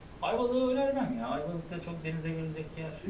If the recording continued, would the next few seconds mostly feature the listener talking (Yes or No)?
Yes